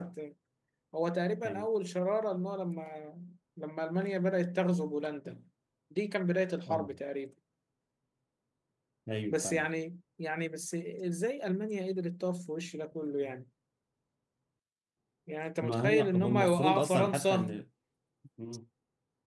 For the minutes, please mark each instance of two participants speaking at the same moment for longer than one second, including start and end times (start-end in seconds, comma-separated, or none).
15.6-17.6